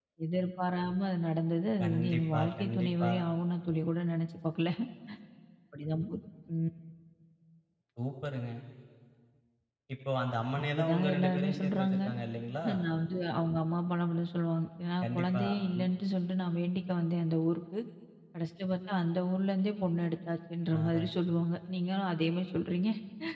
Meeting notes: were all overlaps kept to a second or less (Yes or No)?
No